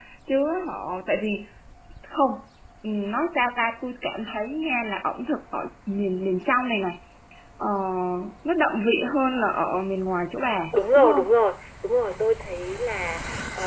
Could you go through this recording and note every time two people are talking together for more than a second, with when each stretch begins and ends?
none

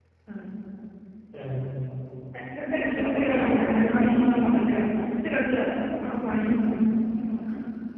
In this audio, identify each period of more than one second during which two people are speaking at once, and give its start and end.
2.7-4.5

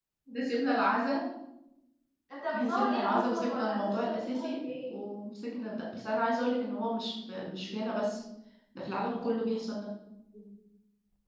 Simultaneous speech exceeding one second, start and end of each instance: 2.5-5.0

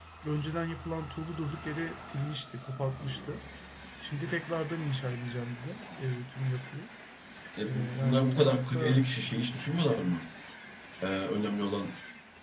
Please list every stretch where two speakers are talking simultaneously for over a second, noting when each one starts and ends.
7.7-9.0

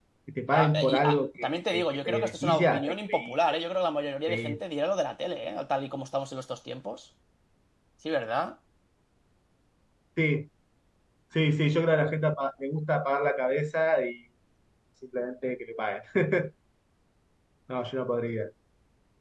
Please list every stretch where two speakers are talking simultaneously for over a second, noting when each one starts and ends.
0.5-3.4

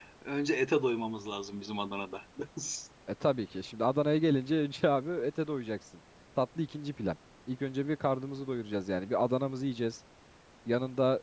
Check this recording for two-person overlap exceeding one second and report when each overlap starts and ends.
none

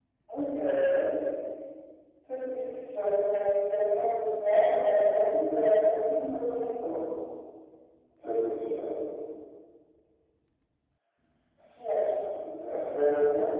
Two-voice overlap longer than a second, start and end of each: none

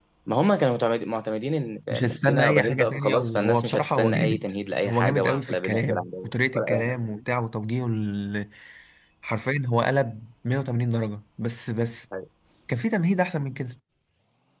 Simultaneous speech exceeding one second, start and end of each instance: 1.9-4.5, 4.9-7.2

